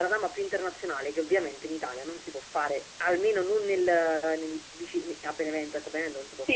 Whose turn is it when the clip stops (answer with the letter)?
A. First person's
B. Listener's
B